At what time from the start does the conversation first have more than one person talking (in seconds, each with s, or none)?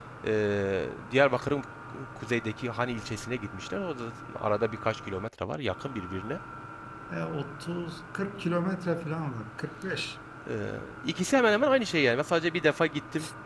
none